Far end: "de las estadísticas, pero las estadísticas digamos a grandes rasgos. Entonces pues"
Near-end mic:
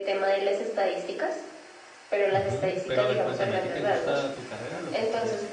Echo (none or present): present